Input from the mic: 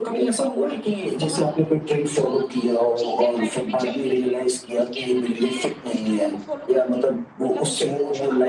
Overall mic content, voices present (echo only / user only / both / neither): both